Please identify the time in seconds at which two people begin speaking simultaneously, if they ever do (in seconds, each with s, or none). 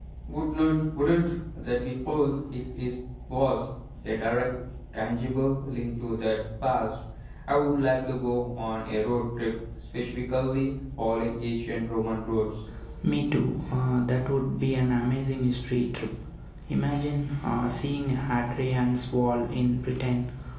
none